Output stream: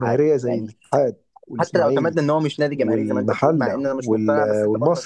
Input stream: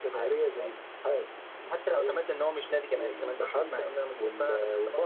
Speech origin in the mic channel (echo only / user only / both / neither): echo only